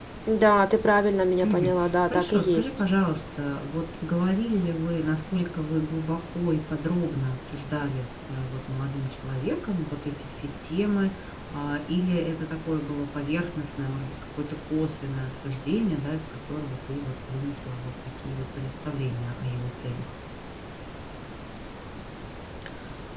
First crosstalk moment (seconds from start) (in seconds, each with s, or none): 1.4 s